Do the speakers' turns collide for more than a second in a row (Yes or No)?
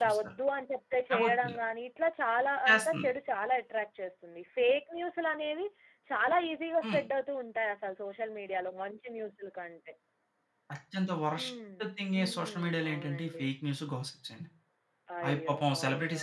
Yes